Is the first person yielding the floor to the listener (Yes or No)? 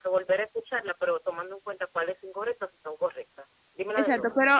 Yes